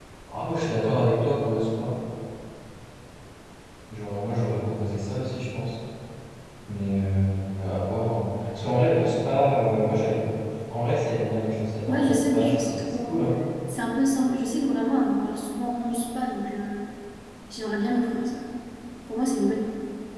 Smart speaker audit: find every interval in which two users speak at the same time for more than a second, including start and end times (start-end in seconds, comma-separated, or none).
11.9-13.3